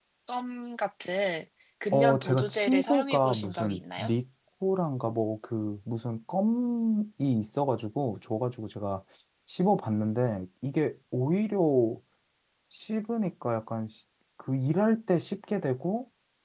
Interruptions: present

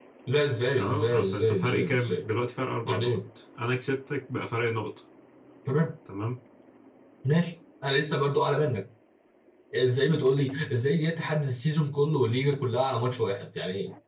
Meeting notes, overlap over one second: present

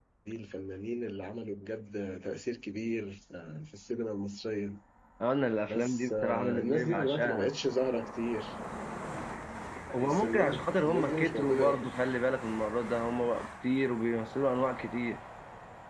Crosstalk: present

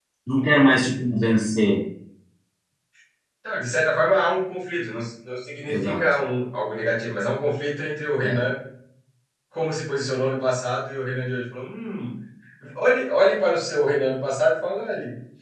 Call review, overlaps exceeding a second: none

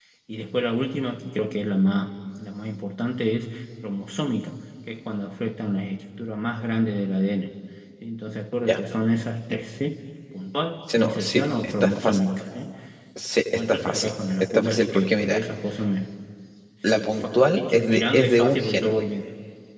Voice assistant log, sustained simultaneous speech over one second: present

